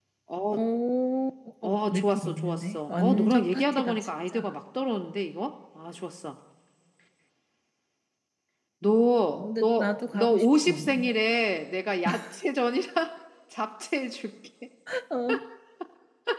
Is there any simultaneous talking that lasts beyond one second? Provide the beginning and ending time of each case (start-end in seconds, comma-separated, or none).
1.6-4.5, 9.3-11.1